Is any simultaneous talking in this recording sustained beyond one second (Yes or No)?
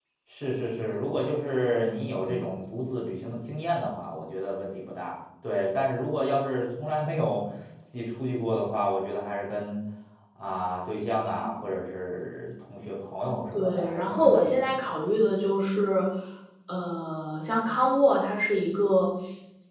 Yes